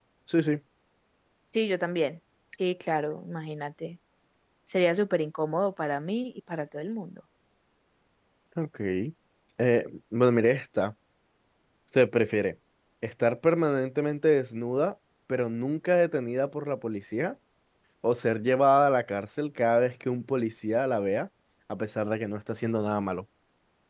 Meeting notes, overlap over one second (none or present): none